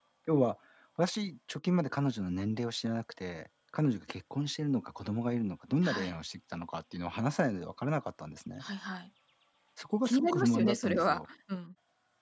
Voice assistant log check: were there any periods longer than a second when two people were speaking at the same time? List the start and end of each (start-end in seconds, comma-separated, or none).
10.0-11.2